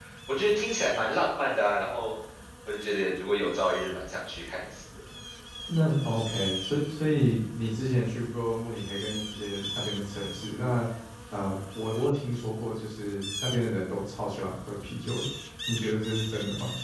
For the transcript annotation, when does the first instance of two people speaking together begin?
none

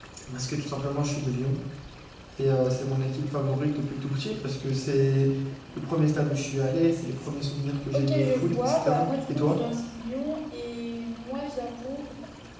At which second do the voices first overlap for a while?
7.9 s

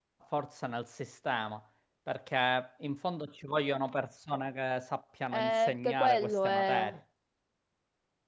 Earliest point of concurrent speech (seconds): 5.3 s

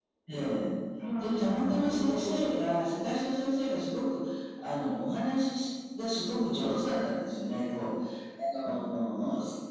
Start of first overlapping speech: 1.2 s

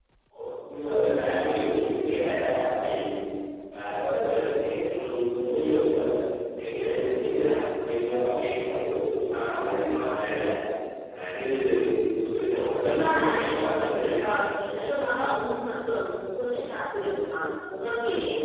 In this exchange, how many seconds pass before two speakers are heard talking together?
12.8 s

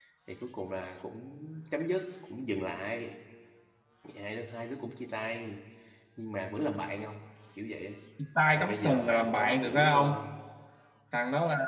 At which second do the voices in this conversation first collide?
8.6 s

